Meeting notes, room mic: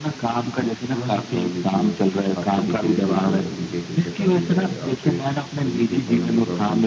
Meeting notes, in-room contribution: present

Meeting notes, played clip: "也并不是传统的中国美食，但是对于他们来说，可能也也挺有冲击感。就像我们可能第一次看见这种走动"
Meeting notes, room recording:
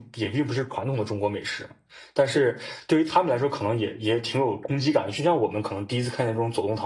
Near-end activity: none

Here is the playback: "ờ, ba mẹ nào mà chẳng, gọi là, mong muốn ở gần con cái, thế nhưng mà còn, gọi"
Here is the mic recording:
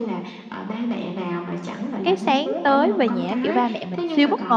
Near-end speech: present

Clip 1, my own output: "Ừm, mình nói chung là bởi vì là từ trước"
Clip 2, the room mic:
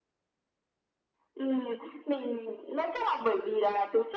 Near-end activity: none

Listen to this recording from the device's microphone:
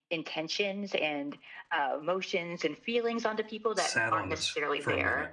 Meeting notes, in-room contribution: present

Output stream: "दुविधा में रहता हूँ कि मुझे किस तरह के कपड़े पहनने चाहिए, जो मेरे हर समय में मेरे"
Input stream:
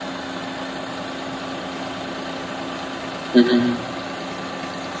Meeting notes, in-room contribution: present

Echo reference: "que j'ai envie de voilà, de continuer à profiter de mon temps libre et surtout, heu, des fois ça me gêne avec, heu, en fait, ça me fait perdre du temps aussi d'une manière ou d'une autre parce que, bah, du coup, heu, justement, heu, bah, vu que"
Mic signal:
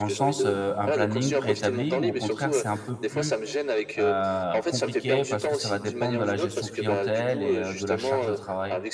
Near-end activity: present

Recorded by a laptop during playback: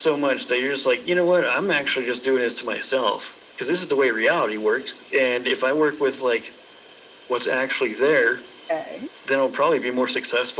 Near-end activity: present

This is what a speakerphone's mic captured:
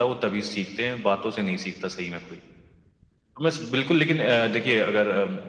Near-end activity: none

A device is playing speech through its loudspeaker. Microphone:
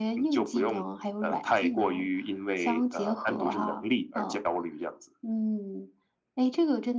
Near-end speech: none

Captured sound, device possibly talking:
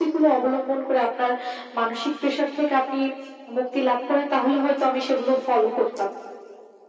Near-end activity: none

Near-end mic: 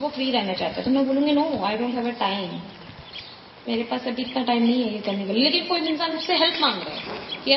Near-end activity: present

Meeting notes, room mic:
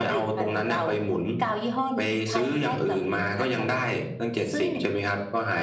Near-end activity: none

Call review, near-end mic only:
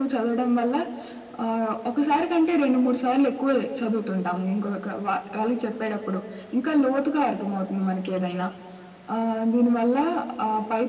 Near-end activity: none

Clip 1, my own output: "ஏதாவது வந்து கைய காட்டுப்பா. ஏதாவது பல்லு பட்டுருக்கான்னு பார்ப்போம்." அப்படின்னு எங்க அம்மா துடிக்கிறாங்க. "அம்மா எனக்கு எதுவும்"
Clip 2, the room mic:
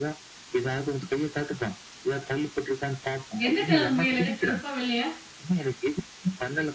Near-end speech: present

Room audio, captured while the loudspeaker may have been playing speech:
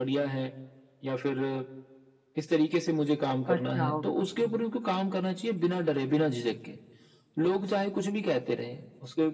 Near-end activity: present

